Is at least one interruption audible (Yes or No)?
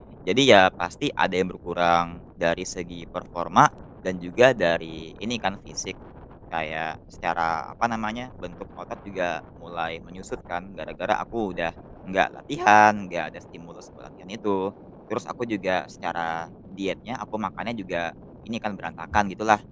No